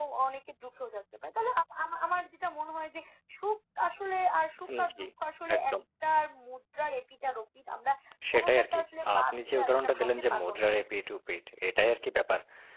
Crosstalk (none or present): present